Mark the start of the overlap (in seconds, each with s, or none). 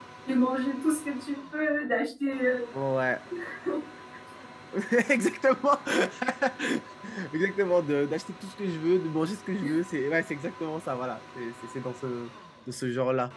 none